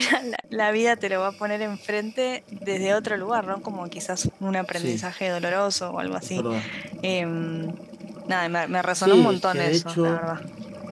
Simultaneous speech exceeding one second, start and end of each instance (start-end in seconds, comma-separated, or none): 9.0-10.3